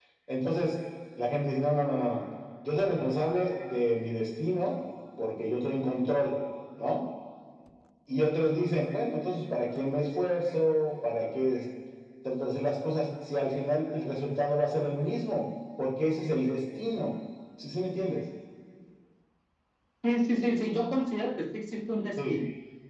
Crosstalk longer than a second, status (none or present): none